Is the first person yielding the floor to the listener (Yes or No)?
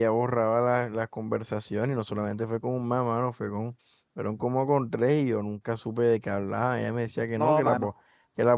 No